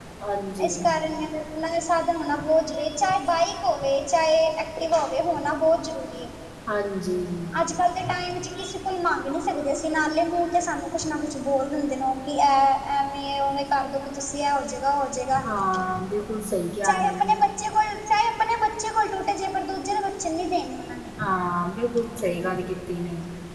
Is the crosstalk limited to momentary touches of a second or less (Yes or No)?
Yes